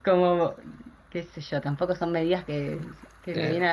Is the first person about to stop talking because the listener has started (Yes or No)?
No